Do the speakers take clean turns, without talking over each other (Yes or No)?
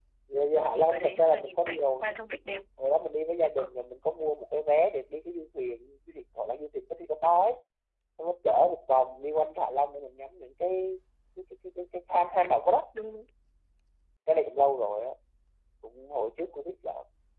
No